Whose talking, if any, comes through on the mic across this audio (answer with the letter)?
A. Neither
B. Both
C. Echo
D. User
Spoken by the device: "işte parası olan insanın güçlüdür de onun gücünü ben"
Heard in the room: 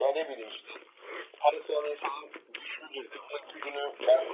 C